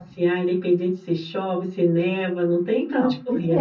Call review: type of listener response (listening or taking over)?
taking over